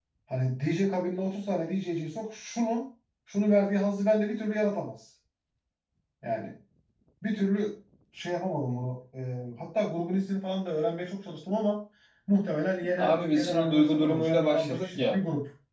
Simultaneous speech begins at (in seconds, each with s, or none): 13.0 s